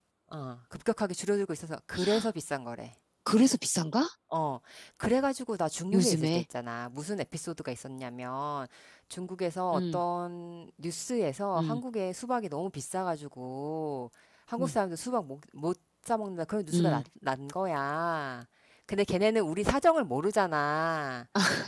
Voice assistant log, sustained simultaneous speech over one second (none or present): none